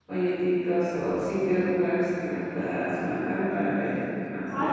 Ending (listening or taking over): taking over